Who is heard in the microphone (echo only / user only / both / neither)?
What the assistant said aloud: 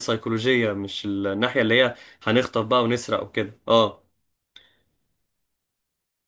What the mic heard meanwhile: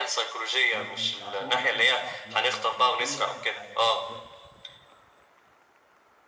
both